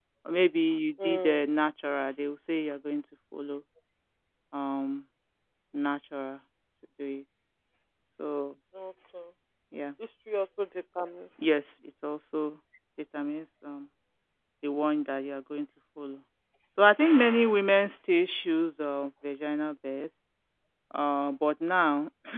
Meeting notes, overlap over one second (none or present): none